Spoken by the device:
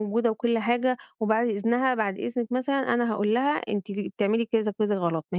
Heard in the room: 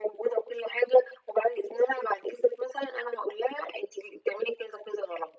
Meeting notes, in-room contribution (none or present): none